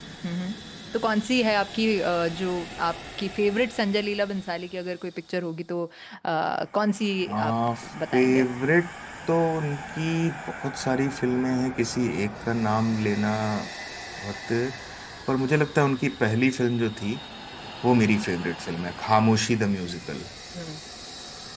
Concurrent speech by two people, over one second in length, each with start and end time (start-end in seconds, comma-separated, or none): none